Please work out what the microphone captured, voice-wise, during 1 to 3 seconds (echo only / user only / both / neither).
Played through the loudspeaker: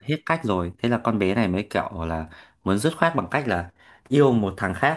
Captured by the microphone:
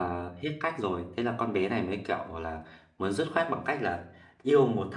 echo only